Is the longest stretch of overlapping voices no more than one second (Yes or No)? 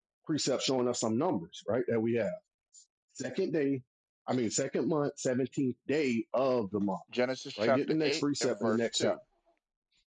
No